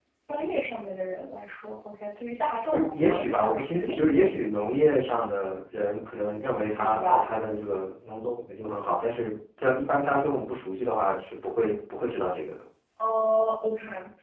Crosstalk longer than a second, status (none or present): present